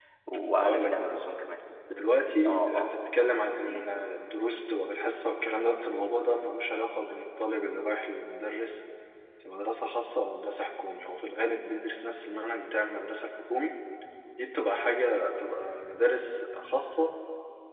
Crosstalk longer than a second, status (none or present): none